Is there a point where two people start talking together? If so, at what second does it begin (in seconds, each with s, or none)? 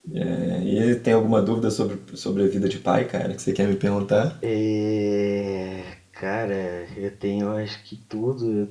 none